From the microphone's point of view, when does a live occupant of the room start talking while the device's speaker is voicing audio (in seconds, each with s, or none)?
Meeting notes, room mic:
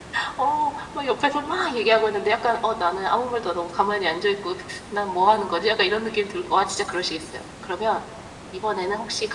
none